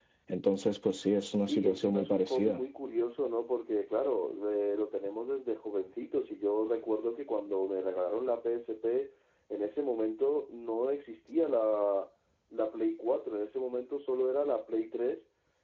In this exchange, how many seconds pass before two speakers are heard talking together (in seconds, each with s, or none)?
1.4 s